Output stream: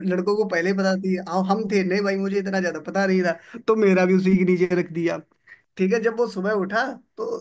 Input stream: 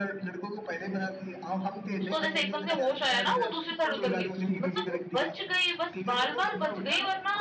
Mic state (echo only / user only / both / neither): both